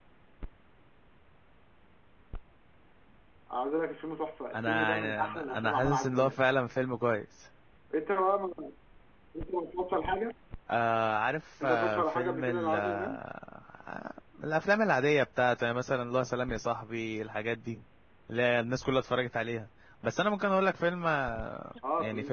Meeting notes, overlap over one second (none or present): present